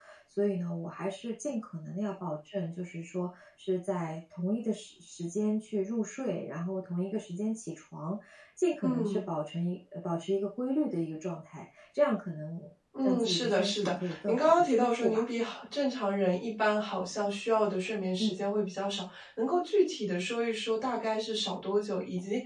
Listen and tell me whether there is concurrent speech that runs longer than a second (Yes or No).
Yes